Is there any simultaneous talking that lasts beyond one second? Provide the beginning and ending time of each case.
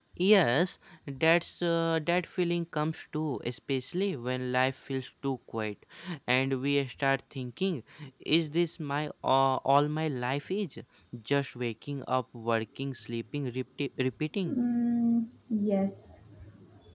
none

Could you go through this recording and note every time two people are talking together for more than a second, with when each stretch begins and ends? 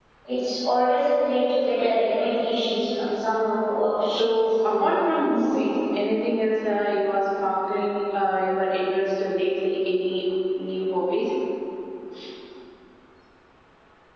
4.2-5.6

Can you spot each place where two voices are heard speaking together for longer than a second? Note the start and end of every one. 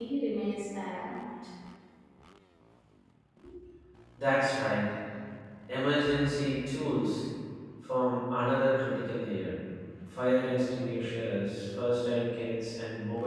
none

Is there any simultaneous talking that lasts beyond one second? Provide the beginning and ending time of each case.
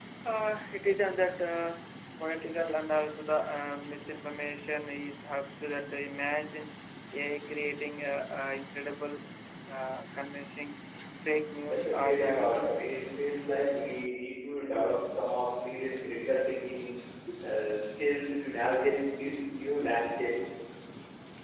11.7-13.1

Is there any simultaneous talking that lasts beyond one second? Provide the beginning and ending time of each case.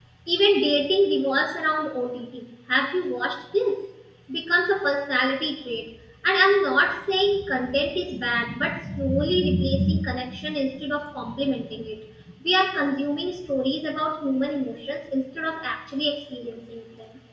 none

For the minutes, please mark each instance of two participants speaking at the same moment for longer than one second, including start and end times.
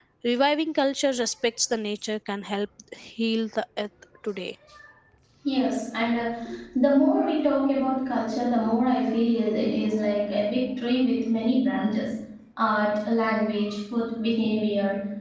none

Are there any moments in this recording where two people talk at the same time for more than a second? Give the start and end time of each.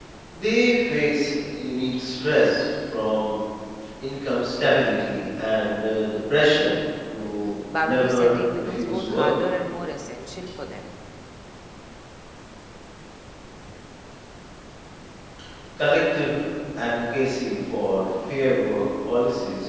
7.8-9.3

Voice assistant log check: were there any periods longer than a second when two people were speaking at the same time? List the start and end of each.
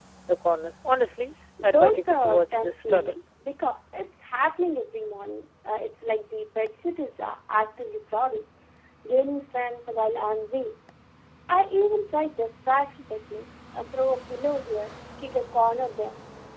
1.7-3.1

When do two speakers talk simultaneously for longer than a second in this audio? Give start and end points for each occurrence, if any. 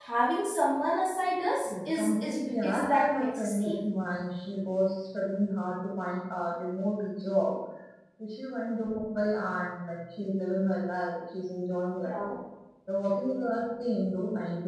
1.6-3.7

